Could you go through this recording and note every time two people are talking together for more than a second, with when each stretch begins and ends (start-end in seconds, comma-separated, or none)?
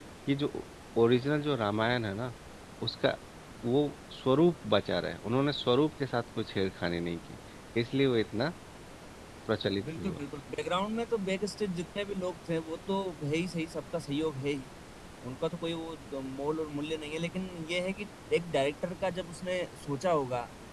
none